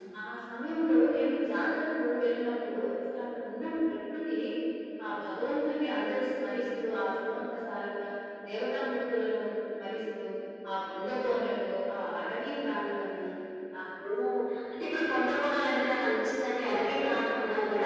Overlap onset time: none

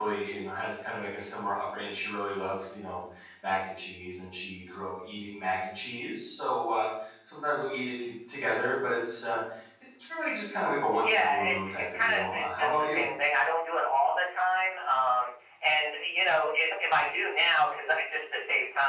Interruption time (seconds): 11.0 s

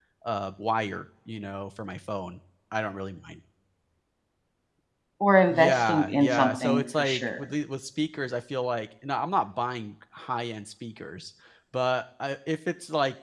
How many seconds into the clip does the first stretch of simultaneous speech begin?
5.5 s

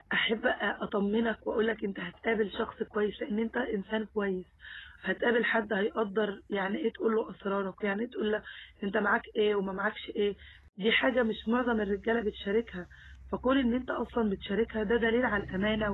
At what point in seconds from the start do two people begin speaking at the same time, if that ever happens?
none

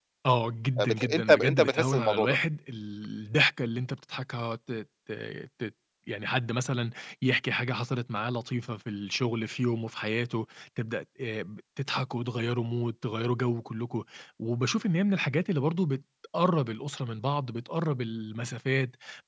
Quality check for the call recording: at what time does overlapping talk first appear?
0.8 s

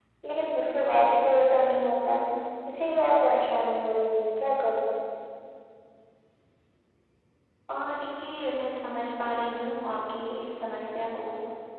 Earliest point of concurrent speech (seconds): none

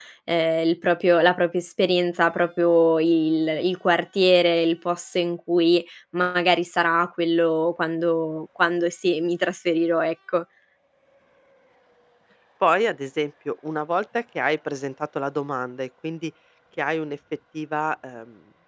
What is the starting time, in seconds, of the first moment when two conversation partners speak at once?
none

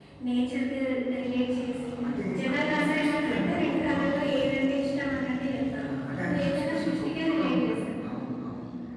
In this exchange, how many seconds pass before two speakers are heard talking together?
2.4 s

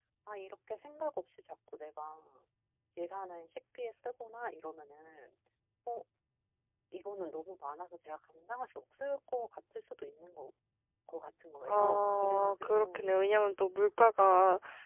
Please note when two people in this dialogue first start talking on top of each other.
11.6 s

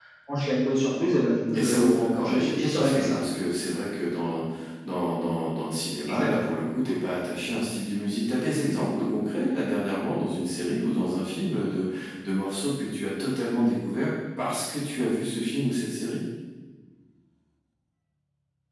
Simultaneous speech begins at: 1.5 s

